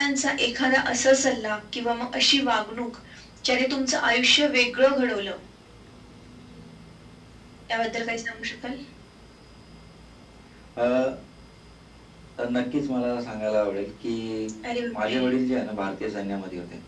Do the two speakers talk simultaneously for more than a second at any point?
No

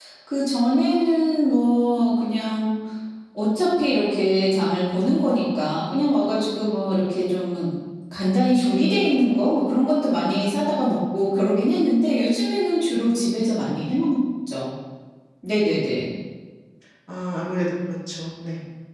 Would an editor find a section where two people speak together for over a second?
No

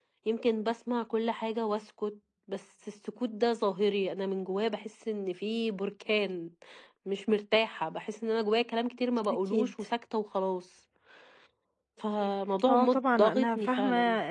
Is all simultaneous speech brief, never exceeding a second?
No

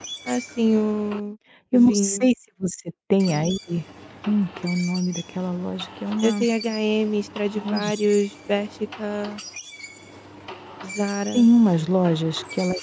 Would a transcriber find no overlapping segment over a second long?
Yes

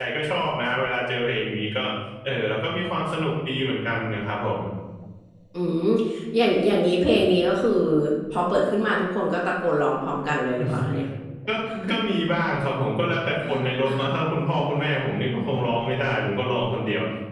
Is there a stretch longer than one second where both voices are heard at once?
No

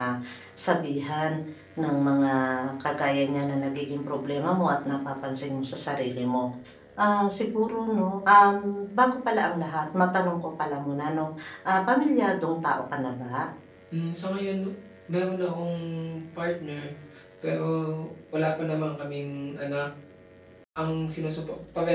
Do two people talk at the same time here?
No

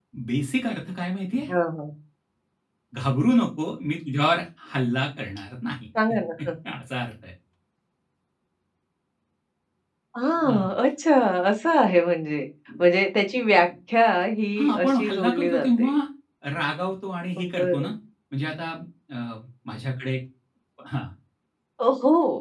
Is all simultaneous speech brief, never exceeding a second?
No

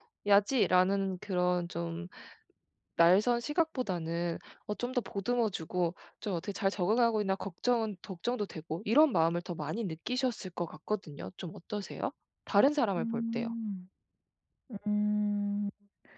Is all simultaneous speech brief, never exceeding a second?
Yes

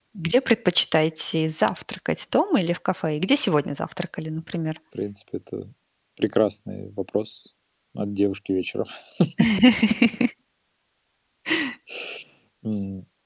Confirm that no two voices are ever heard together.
Yes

